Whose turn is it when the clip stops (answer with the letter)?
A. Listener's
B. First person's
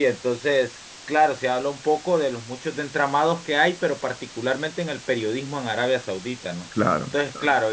B